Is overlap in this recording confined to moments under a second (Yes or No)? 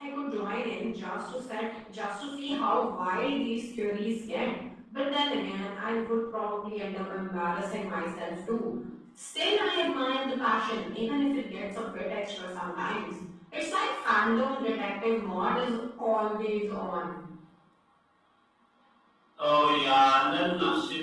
Yes